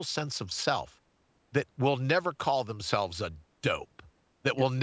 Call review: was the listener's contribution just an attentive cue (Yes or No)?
Yes